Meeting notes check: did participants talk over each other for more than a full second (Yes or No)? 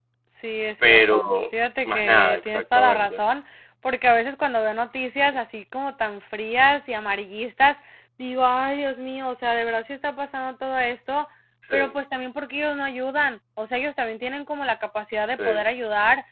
Yes